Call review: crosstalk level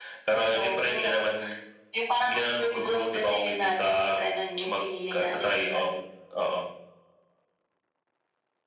present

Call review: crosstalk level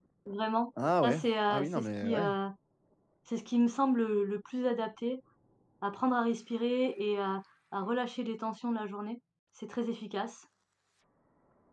present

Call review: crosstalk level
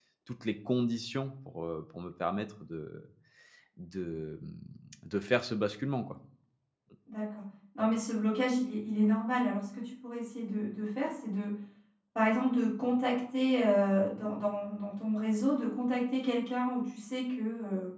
none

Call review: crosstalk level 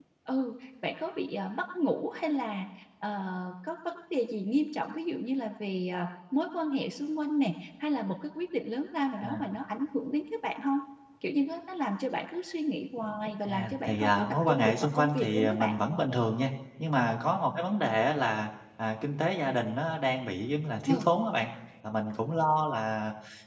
present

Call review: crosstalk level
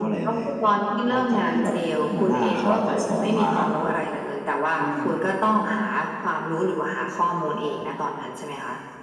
present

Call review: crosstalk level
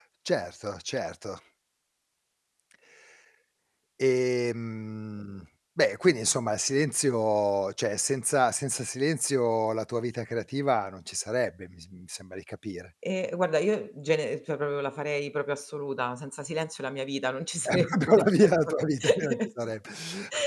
present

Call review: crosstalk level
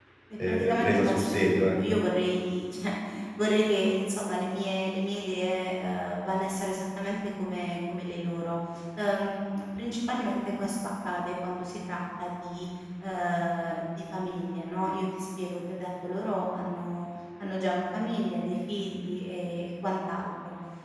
present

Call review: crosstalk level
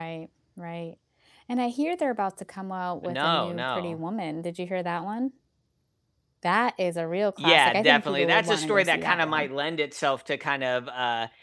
present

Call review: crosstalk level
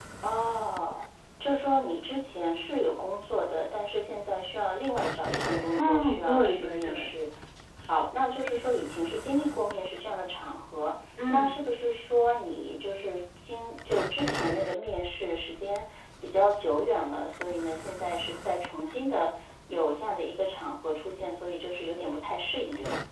present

